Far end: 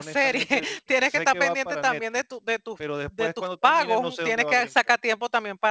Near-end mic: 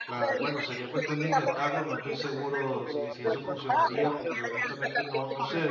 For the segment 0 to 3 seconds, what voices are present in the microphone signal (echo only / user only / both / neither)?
both